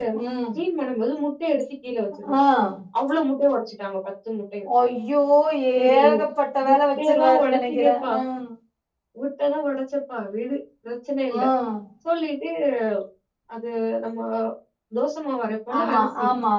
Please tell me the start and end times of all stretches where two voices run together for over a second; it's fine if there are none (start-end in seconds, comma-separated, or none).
6.6-8.1